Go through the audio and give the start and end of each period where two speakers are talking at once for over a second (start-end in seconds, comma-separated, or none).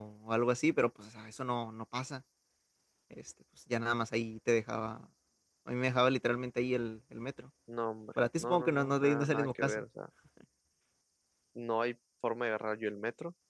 8.4-9.8